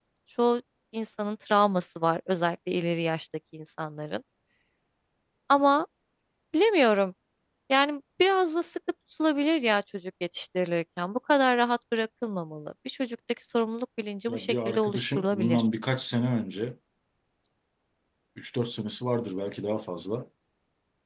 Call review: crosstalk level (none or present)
present